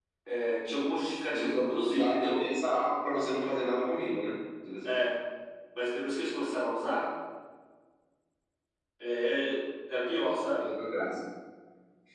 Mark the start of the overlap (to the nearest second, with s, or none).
1 s